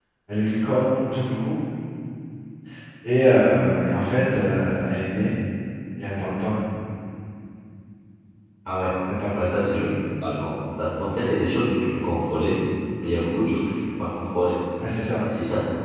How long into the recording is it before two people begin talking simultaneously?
none

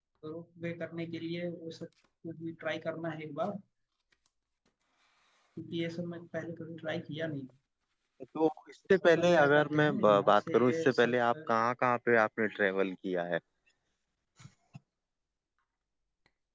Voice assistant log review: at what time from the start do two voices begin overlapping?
9.2 s

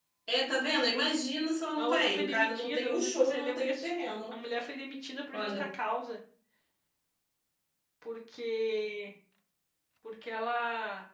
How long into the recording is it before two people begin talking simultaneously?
1.8 s

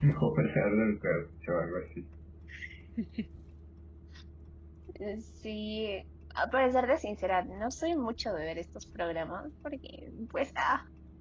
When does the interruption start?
none

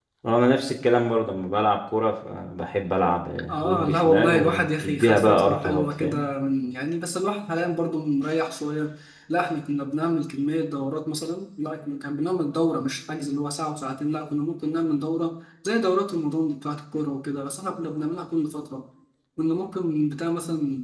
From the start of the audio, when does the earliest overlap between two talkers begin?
3.5 s

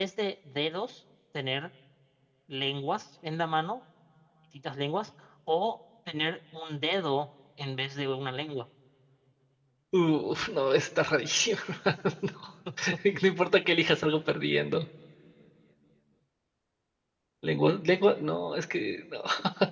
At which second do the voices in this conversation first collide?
none

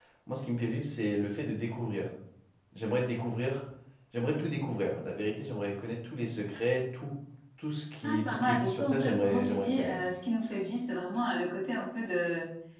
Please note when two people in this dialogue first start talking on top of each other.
8.0 s

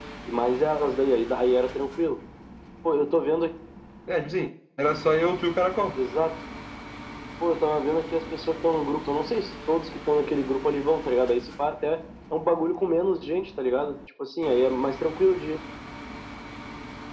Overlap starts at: none

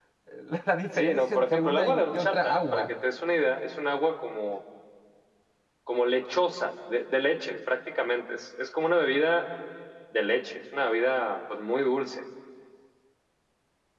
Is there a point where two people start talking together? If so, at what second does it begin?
1.0 s

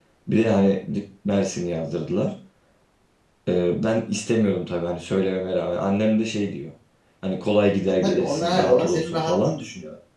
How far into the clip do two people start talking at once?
7.8 s

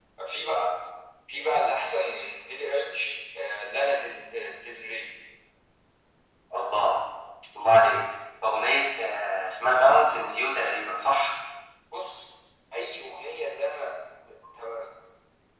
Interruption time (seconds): none

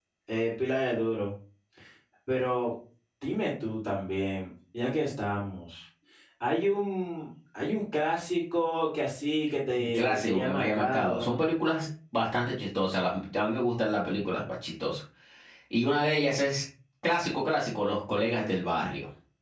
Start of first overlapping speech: 9.8 s

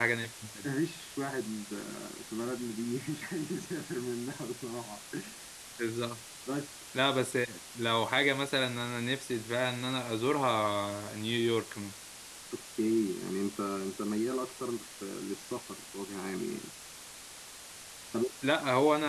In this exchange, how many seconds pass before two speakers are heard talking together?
none

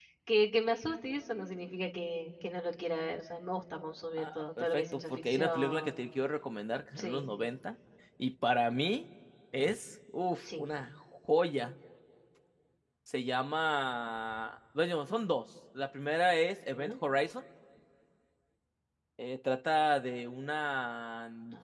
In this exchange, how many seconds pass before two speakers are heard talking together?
4.2 s

